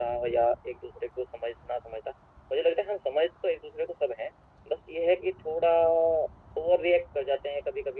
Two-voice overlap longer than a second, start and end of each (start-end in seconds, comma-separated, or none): none